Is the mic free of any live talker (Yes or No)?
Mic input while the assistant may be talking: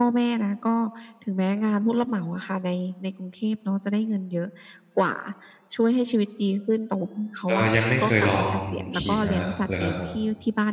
No